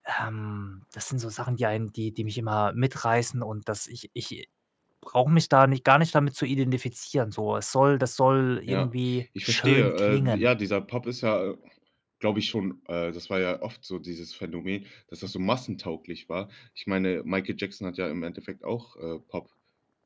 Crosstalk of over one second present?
Yes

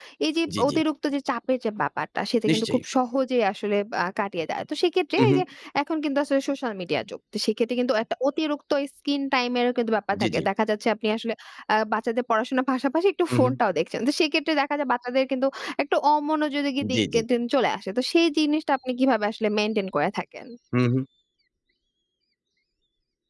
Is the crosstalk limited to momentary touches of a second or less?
Yes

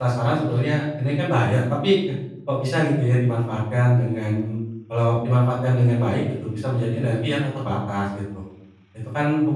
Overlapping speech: No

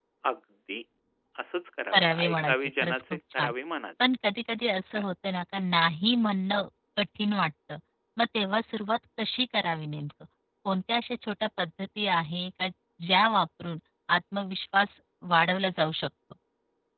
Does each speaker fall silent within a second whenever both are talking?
No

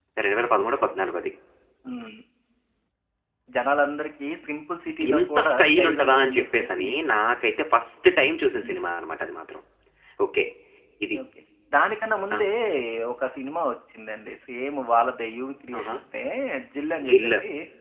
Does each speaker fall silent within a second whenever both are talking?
No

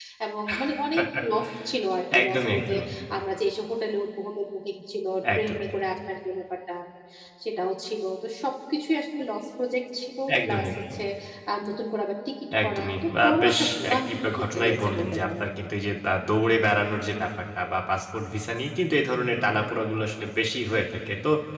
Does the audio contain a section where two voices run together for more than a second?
Yes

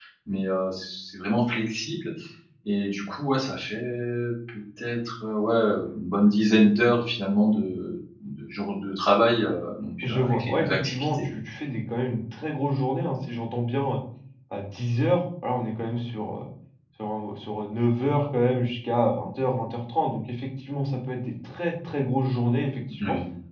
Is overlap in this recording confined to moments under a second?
No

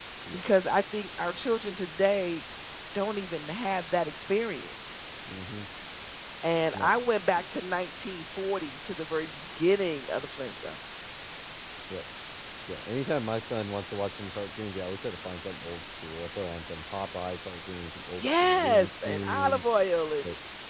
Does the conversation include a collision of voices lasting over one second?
Yes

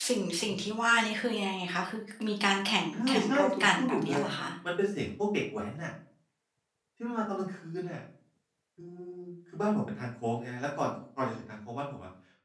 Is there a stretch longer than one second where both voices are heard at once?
Yes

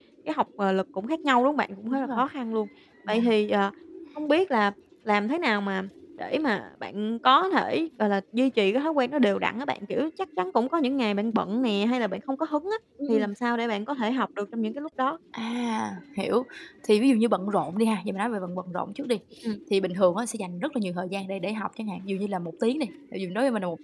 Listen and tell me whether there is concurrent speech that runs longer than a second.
No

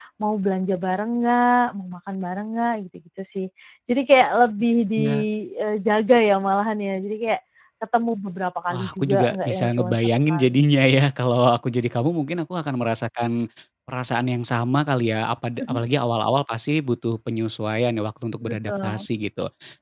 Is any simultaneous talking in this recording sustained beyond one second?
Yes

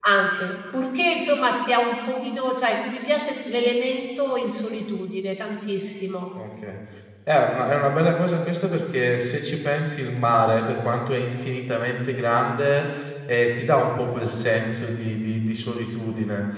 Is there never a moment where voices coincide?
Yes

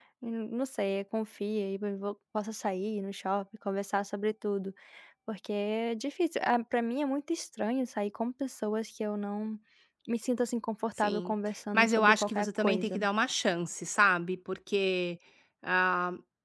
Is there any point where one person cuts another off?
Yes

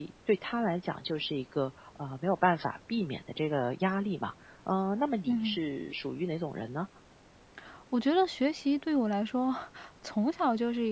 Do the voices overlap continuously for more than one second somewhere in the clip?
No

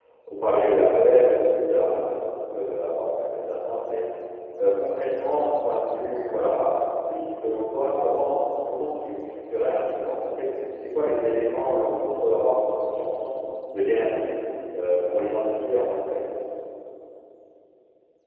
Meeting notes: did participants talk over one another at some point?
No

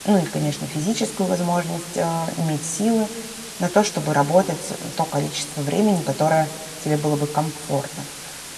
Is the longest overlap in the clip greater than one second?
No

